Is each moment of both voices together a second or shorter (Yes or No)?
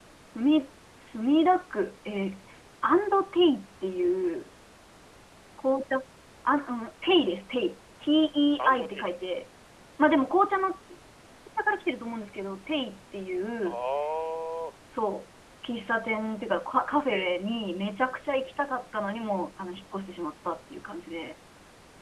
Yes